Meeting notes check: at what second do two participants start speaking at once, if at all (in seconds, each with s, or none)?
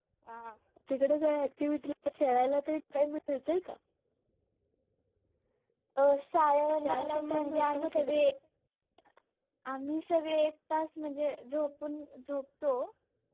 6.8 s